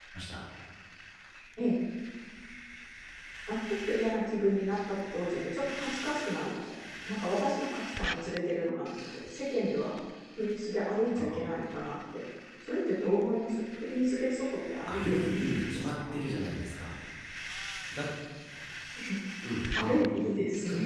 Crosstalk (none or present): present